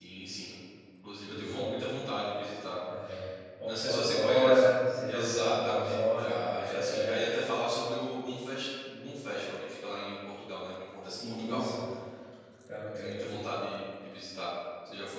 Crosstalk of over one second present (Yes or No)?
Yes